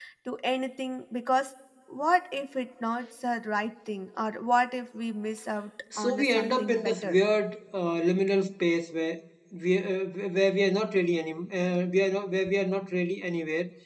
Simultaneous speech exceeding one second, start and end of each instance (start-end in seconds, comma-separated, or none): 6.0-7.2